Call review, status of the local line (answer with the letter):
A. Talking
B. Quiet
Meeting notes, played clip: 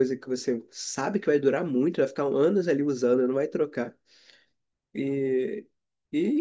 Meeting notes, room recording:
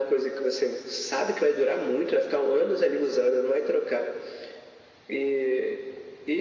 B